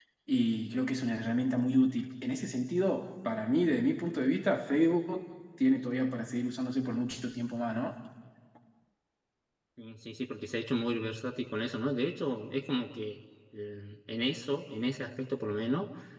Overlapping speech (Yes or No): No